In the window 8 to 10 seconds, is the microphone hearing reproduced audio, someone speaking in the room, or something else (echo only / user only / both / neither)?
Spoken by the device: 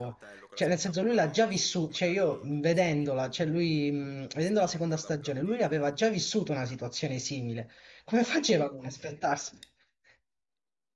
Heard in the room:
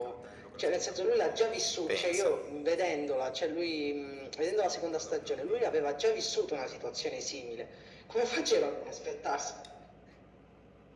echo only